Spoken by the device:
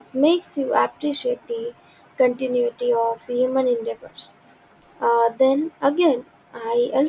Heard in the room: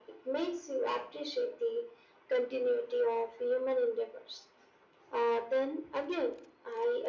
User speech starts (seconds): none

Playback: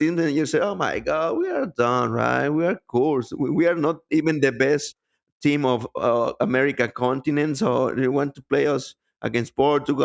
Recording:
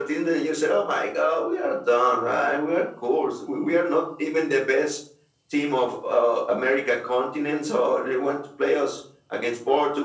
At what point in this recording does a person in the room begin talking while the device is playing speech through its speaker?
none

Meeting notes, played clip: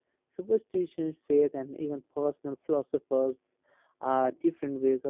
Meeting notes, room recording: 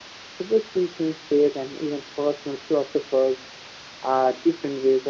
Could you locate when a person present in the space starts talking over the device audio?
none

